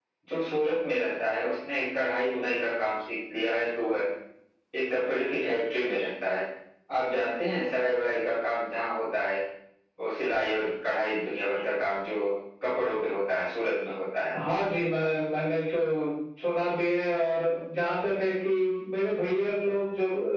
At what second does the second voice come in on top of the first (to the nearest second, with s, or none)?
none